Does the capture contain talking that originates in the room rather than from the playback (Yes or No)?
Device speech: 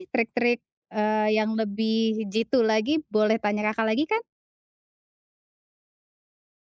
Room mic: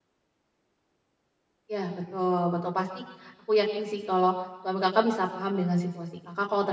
Yes